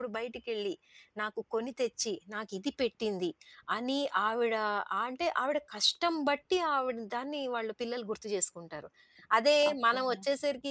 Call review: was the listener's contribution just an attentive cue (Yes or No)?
Yes